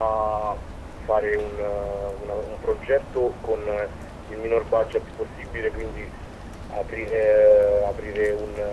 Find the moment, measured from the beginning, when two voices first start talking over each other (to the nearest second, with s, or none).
none